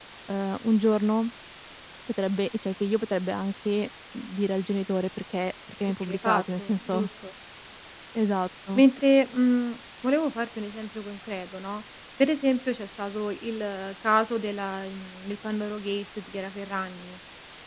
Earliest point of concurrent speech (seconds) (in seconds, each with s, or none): 5.8 s